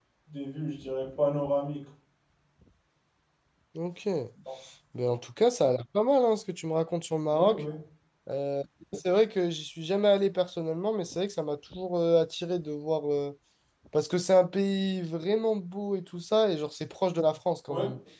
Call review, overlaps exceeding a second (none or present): none